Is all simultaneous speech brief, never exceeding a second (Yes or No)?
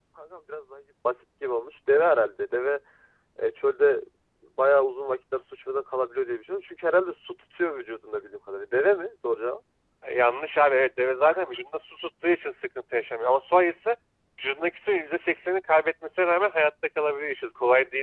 Yes